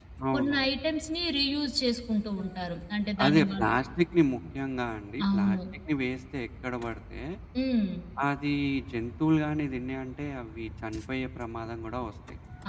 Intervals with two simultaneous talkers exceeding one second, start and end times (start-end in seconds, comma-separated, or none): none